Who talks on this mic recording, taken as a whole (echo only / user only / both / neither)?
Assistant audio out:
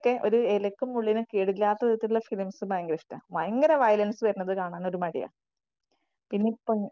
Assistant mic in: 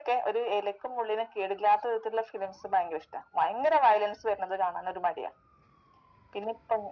echo only